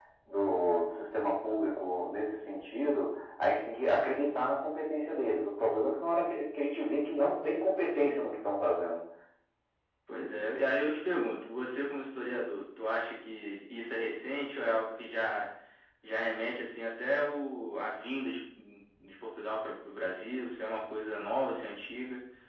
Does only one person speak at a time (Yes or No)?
Yes